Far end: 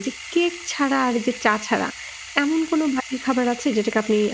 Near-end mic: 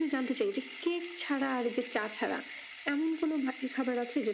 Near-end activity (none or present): none